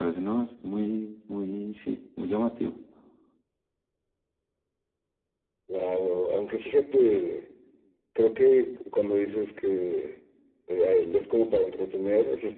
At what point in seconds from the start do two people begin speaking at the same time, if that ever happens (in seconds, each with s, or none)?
none